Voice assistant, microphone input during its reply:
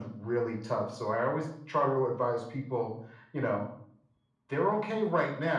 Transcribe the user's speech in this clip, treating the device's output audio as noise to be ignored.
none

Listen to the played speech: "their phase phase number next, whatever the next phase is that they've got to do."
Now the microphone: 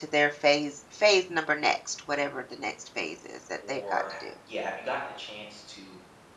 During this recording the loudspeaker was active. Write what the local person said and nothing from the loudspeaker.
or ha- yeah, have you gotten the chance to

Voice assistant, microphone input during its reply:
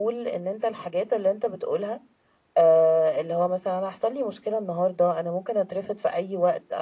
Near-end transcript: none

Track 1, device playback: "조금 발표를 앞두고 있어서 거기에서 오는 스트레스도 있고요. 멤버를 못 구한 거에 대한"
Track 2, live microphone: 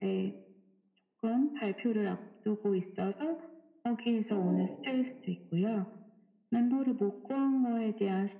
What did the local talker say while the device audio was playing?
어

